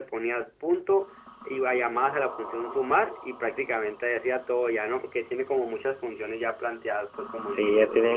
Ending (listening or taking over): taking over